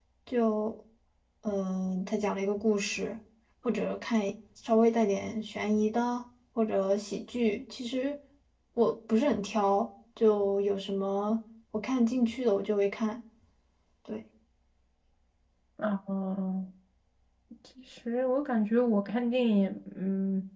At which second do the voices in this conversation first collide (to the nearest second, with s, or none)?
none